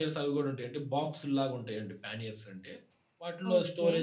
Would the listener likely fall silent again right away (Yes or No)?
Yes